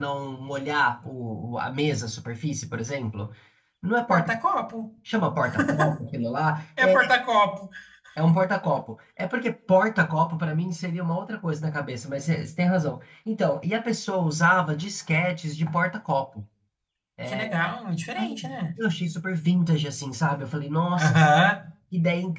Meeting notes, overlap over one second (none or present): none